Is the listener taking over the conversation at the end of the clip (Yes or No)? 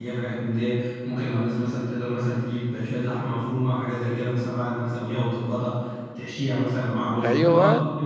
No